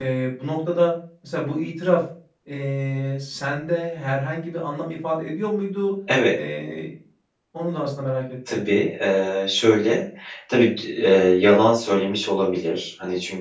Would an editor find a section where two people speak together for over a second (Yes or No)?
No